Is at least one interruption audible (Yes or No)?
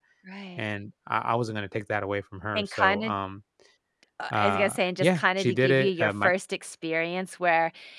Yes